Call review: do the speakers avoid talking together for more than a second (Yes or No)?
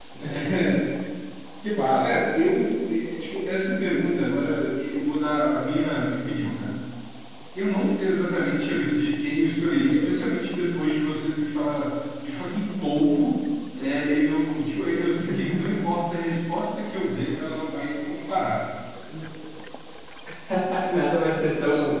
Yes